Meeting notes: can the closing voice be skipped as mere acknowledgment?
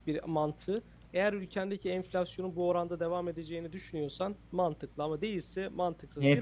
Yes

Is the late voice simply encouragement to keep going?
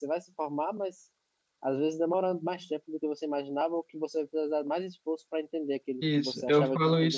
No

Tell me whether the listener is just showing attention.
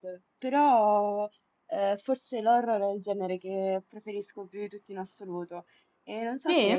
Yes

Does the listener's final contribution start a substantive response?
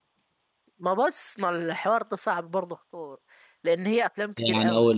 Yes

